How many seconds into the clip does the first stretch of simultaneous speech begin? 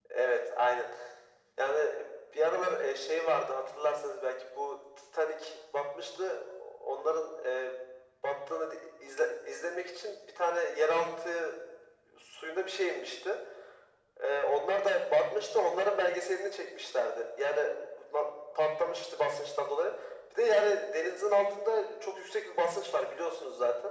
none

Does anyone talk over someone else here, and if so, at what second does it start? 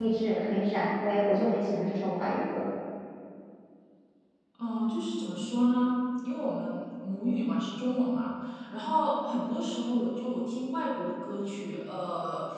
none

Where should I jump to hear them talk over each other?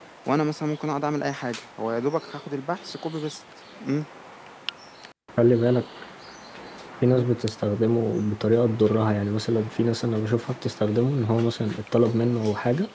none

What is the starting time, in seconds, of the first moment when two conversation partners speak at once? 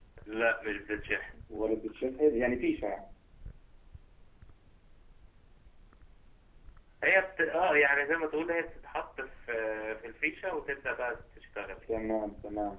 none

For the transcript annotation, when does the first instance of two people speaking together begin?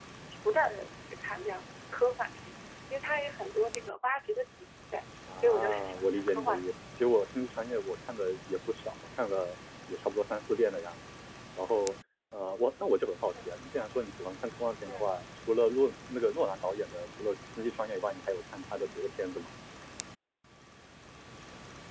5.3 s

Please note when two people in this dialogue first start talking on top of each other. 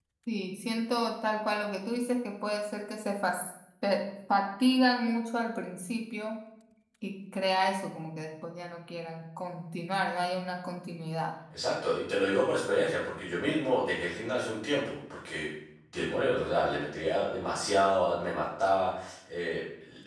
none

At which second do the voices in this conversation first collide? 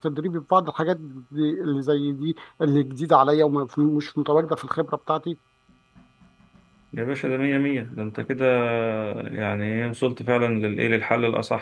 none

